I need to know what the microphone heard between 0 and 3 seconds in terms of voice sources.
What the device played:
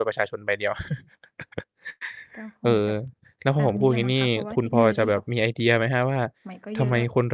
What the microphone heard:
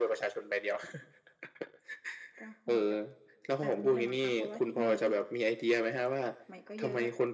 echo only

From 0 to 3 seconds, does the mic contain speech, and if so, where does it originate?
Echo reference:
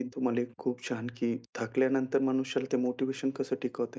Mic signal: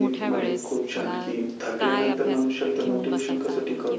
both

